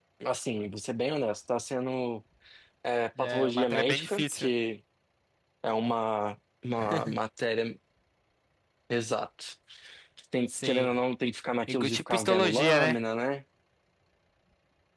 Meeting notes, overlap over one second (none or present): present